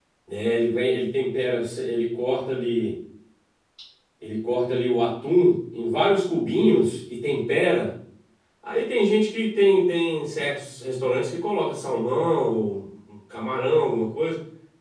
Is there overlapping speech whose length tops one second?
No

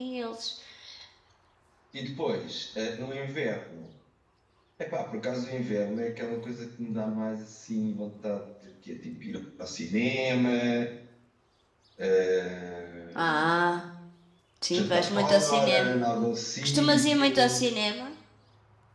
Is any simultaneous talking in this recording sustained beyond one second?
Yes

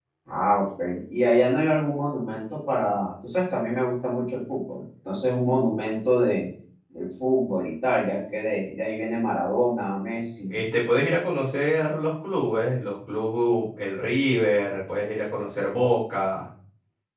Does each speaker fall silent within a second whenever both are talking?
Yes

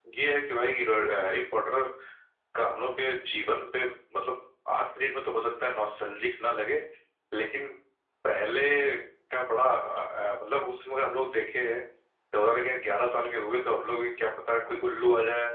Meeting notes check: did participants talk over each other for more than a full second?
No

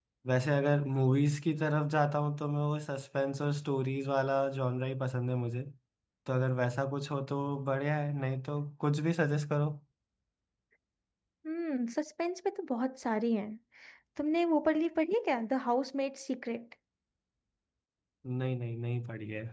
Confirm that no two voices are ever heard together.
Yes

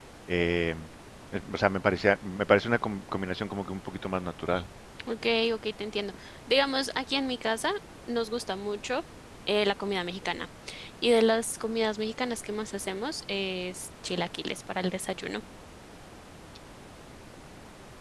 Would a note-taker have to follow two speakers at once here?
No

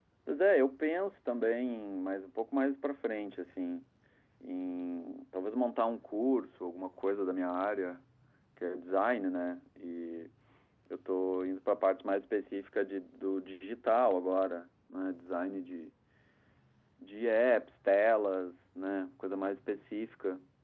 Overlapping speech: No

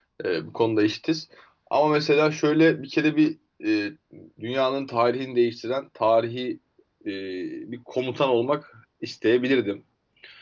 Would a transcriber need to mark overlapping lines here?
No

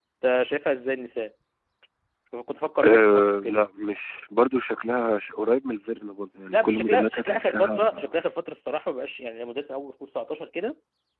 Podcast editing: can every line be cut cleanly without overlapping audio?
No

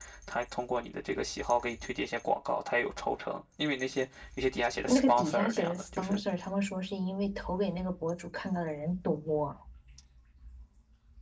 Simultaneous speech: Yes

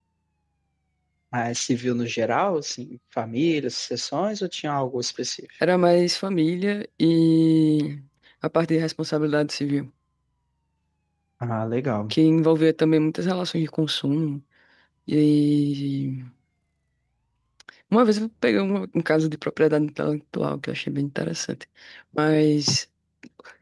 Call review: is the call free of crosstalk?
Yes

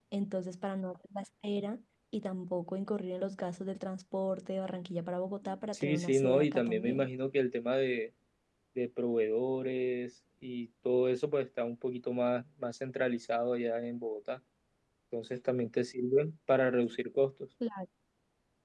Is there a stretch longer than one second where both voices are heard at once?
Yes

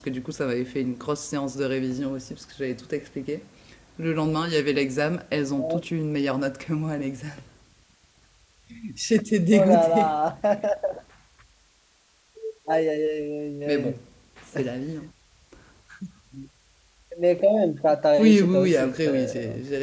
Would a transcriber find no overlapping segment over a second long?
No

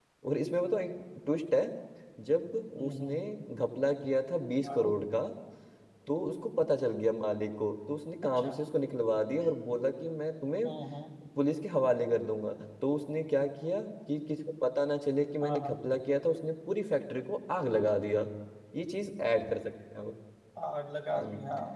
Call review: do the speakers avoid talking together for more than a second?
Yes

